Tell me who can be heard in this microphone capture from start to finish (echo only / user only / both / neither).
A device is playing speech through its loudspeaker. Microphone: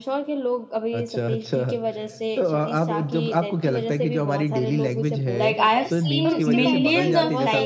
both